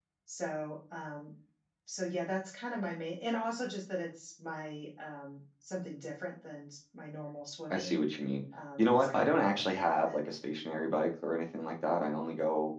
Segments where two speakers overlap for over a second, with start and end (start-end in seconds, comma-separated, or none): 8.8-10.2